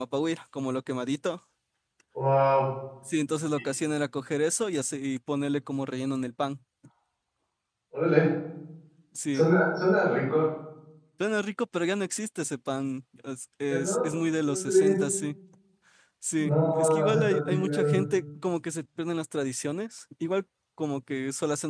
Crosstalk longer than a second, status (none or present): present